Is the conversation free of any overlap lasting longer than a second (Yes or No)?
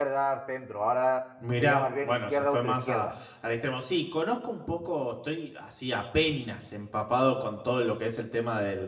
No